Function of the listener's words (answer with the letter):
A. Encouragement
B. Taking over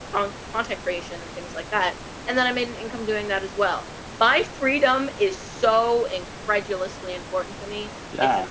B